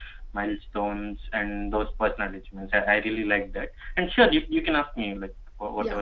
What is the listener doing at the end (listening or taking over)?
taking over